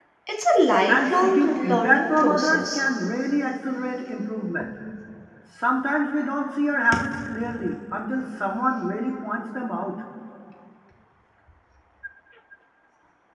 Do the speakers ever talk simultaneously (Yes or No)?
Yes